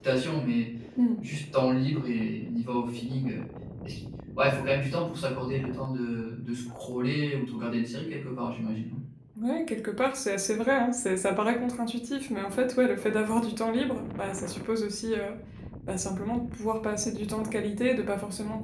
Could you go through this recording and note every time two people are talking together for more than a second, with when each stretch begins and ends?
none

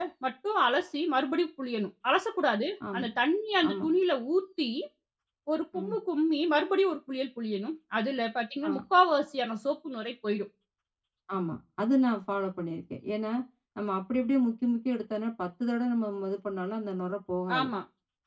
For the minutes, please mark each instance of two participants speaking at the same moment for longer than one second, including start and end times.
none

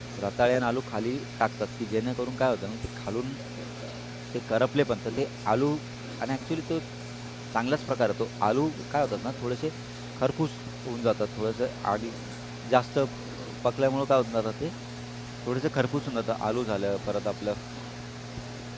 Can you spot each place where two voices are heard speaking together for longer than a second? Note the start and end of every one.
none

